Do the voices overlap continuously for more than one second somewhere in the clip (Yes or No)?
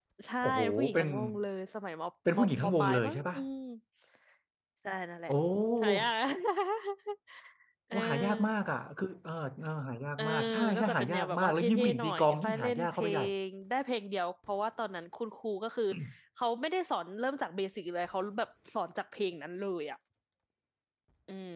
Yes